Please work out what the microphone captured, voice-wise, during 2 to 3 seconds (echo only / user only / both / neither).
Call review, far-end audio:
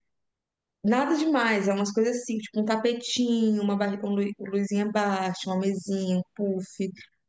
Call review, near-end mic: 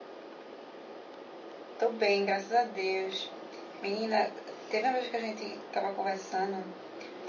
user only